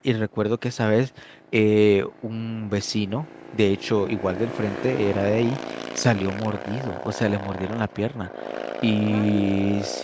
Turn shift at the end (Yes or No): No